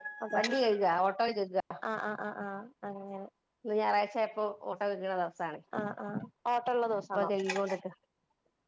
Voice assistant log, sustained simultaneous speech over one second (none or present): none